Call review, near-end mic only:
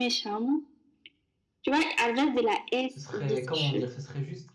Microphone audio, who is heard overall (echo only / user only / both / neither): both